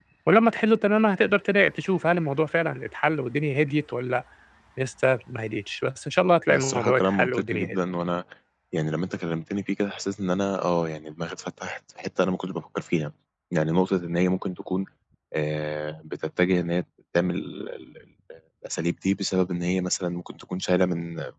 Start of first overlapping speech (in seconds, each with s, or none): 6.5 s